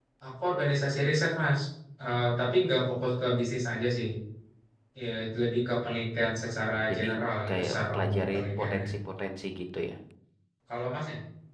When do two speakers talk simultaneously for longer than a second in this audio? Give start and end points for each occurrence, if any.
7.5-8.9

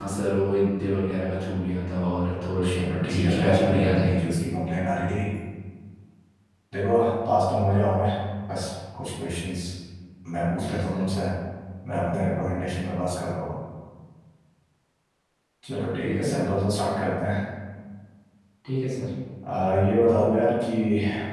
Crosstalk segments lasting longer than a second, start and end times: 2.6-4.2

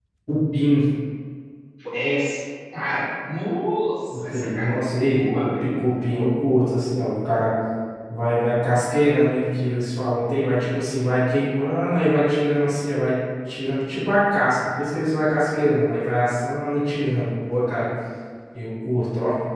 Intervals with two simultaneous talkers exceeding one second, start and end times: 4.1-5.8

